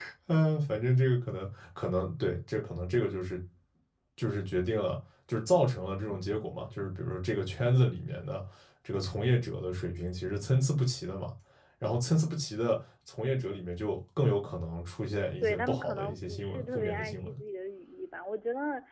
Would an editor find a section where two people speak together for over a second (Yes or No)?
Yes